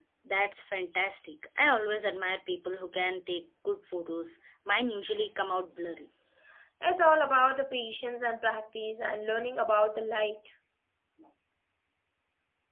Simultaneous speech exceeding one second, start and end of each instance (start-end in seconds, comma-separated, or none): none